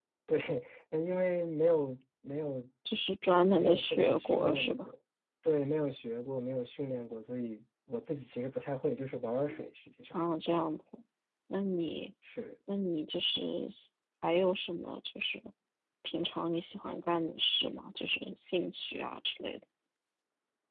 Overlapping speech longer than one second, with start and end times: 3.5-4.9

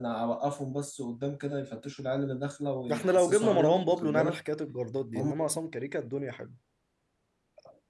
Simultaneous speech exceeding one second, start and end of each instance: 2.9-4.4

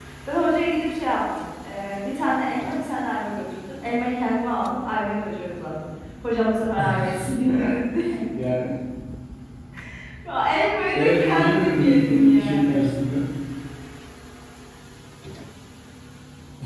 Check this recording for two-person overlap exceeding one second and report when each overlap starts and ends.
10.9-12.8

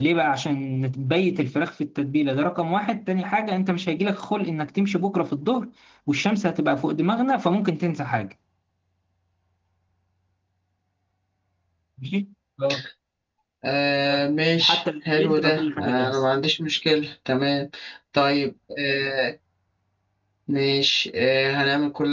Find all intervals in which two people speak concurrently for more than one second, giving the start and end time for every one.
14.6-16.2

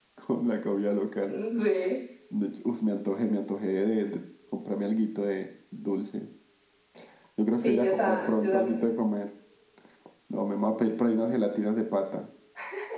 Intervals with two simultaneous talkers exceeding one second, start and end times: 7.5-8.8

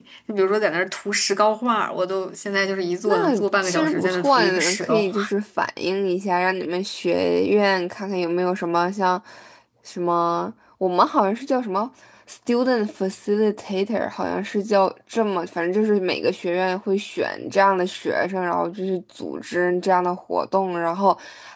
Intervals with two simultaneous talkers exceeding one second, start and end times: 3.1-5.3

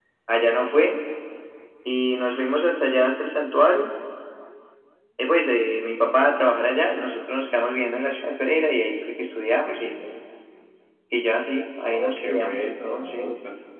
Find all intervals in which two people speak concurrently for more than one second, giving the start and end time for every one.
11.8-13.3

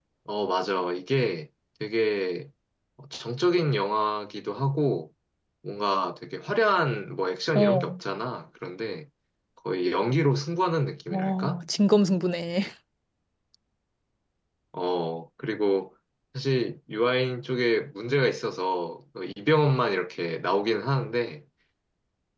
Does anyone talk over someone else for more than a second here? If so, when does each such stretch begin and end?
none

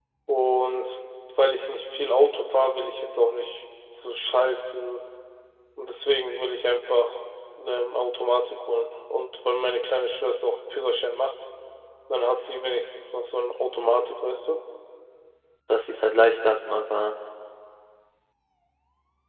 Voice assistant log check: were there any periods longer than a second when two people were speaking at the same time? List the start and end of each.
none

